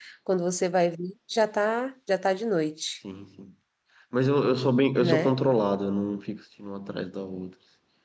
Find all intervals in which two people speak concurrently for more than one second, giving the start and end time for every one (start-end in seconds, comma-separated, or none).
none